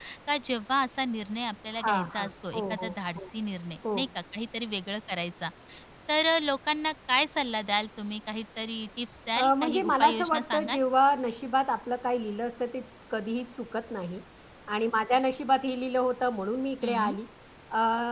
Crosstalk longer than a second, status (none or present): present